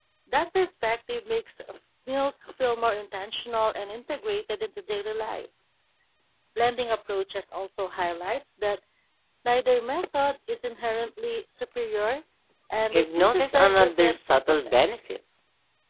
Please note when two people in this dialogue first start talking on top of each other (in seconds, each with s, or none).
12.9 s